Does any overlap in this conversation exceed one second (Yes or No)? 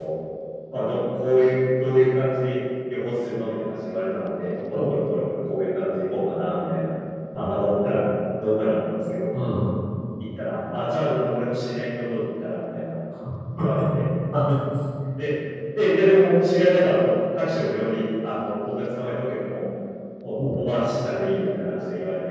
No